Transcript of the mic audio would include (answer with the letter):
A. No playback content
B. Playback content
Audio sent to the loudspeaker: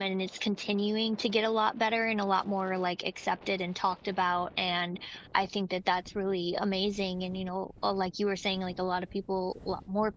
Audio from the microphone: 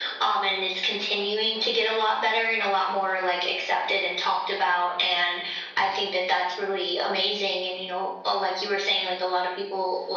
B